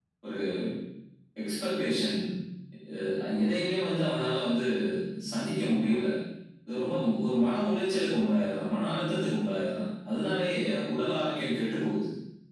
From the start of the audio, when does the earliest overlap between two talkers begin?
none

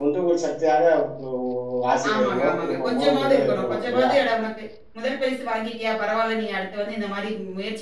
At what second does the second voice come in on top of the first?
2 s

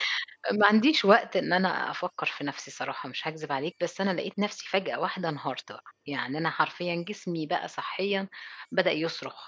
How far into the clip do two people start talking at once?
none

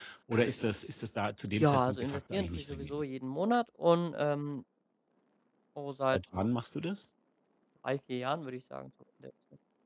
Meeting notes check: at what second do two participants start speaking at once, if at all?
2 s

